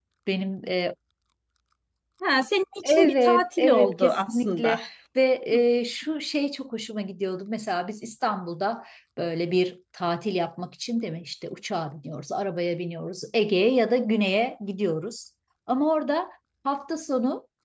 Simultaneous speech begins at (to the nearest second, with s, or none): 3 s